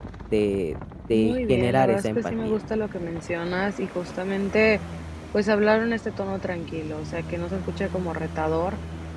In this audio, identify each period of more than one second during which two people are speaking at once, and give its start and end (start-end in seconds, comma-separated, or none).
1.1-2.6